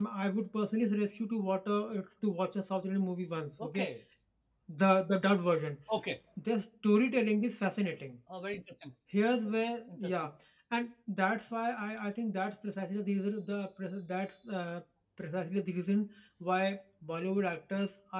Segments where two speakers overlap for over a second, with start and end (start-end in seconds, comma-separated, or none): none